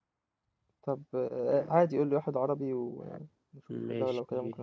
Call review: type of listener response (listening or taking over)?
taking over